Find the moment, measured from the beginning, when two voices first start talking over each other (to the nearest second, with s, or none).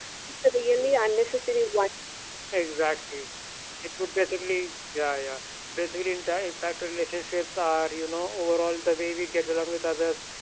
none